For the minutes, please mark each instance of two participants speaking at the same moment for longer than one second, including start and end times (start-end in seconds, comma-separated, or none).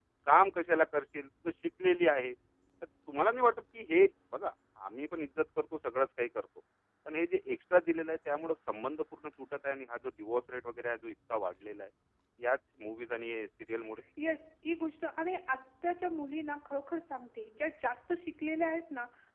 none